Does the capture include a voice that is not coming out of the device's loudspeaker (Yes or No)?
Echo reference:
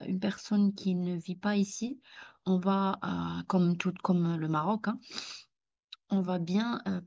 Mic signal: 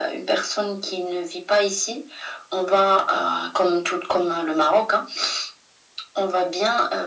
No